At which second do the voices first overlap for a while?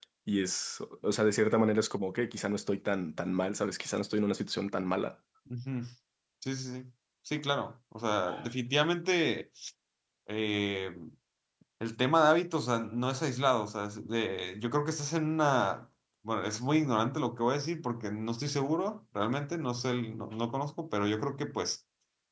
none

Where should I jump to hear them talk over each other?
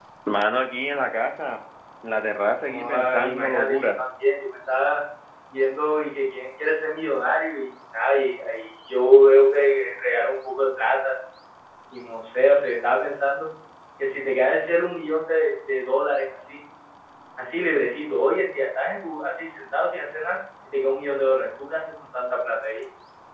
3 s

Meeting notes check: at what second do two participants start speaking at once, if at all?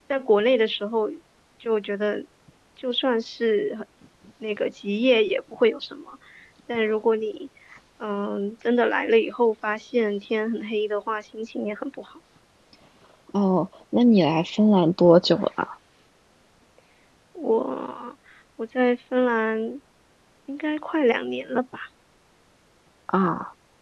none

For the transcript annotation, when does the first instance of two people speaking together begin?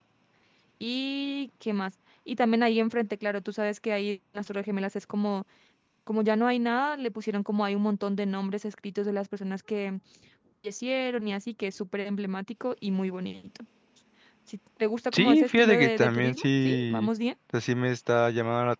15 s

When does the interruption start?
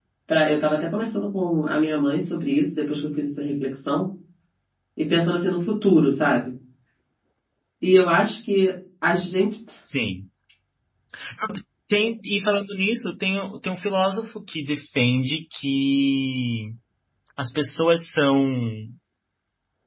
none

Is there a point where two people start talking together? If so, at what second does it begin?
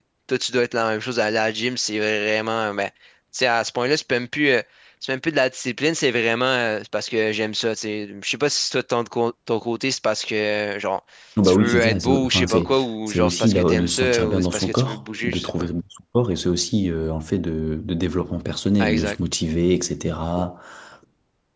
11 s

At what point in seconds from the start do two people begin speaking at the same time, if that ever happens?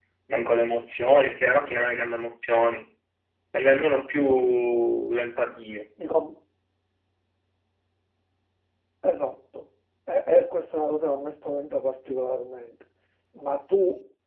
none

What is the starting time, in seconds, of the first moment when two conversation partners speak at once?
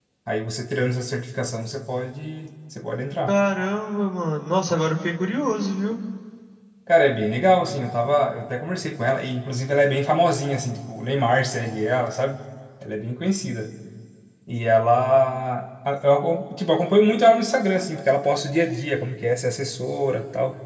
none

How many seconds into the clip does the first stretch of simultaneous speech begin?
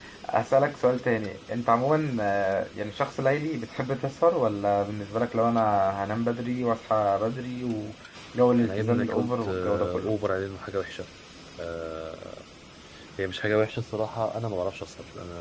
9 s

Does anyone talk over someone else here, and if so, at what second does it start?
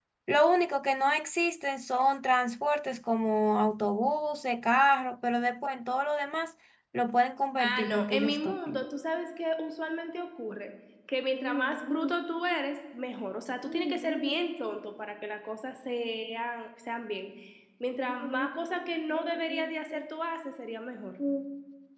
8 s

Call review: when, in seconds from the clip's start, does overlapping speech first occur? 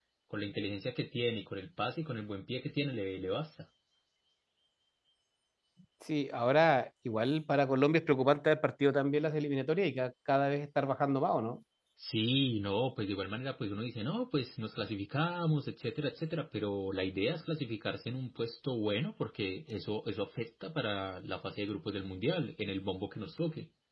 none

